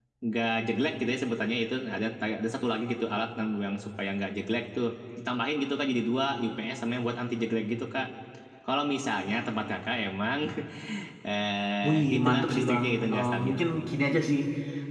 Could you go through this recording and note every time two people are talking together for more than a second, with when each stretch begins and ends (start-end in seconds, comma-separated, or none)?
11.9-13.6